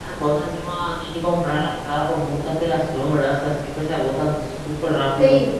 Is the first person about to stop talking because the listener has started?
Yes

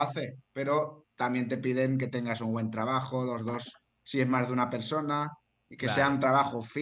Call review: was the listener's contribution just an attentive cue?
Yes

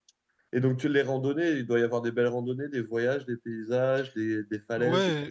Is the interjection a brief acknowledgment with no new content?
No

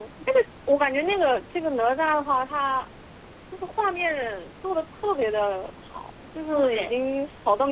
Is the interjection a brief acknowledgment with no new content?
Yes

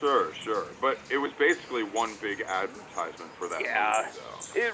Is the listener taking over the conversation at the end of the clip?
Yes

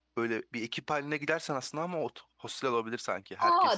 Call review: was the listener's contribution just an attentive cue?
No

